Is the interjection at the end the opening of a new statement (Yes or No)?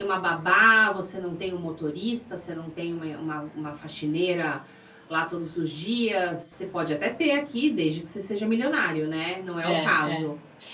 Yes